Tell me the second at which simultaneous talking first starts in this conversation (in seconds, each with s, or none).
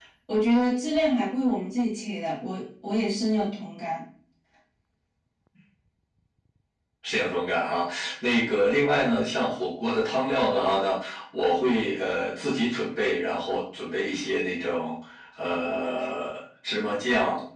none